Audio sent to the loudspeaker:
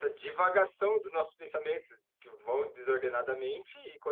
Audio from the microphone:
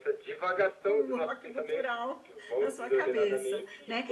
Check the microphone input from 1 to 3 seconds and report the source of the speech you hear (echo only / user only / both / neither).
both